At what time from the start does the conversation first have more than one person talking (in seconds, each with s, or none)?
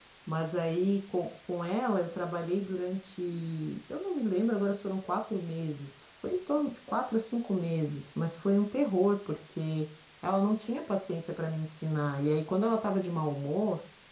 none